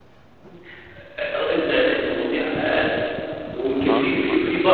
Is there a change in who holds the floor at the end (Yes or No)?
No